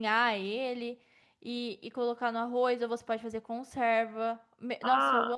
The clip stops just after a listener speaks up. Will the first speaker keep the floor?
No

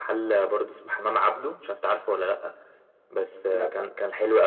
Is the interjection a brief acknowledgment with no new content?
Yes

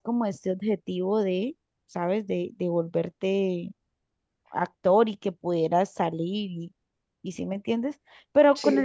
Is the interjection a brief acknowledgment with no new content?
Yes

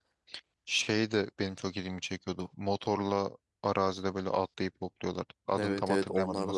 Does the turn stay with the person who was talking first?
No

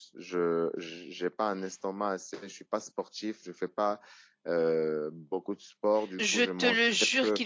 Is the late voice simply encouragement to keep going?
No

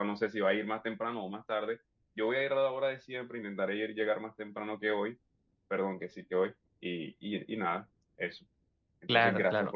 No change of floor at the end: No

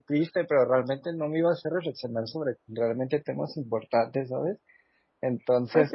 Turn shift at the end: Yes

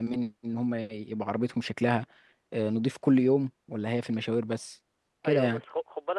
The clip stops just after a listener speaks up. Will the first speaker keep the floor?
No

